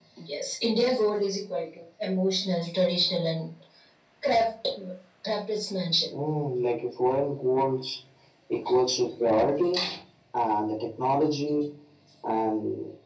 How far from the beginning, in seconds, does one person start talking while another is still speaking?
none

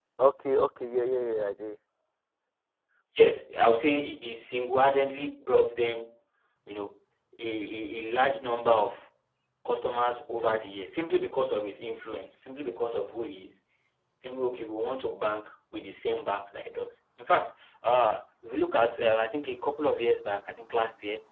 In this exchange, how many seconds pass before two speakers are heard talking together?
none

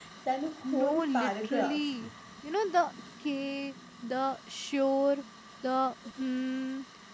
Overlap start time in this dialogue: 0.7 s

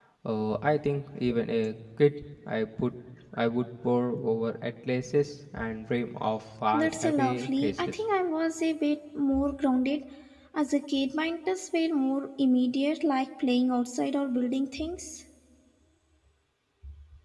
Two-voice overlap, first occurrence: 6.7 s

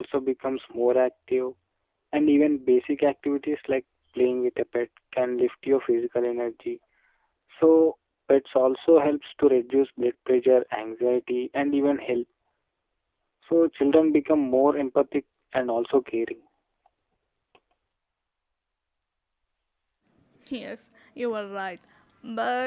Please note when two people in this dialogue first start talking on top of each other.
none

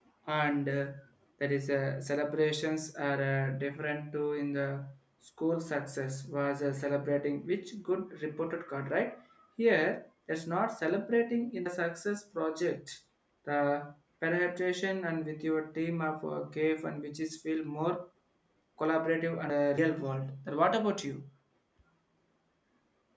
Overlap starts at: none

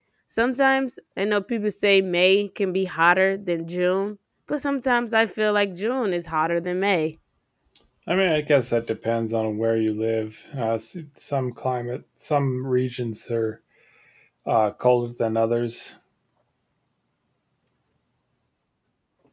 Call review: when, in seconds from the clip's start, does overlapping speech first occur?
none

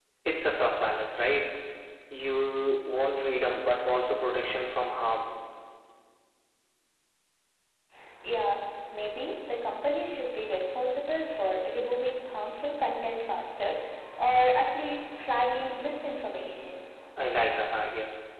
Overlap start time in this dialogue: none

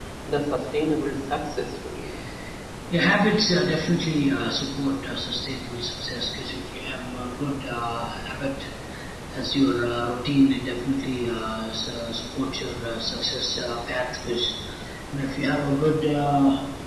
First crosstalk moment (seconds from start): none

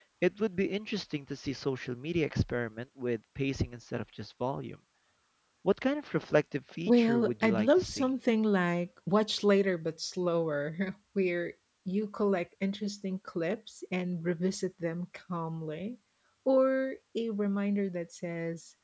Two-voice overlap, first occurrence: 6.9 s

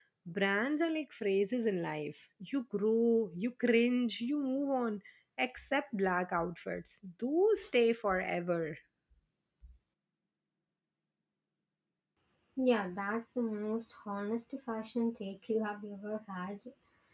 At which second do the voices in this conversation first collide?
none

